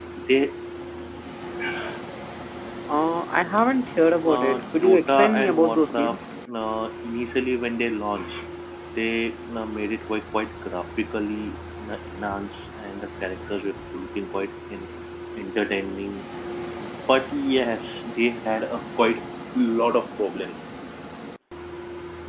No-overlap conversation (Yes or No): No